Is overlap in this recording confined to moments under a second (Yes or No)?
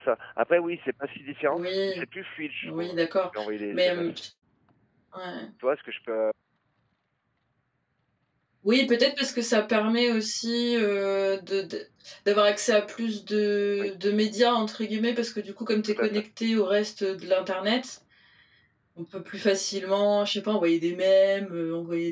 Yes